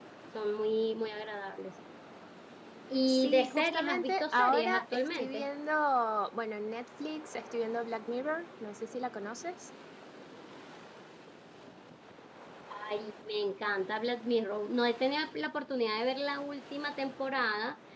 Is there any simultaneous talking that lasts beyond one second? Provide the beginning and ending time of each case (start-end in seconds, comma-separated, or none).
3.1-5.5